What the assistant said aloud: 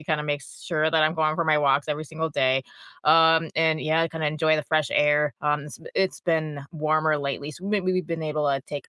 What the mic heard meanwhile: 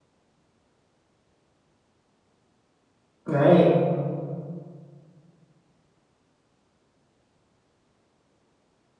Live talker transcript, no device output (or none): Right.